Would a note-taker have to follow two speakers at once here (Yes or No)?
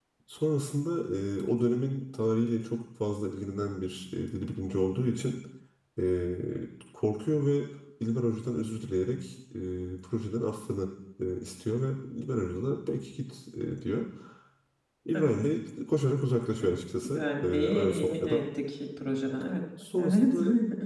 Yes